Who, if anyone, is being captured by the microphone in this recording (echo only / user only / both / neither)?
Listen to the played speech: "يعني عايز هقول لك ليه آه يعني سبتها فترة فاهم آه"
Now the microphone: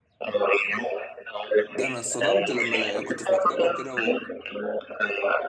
both